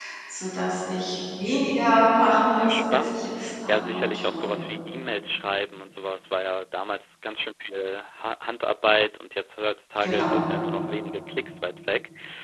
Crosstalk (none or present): present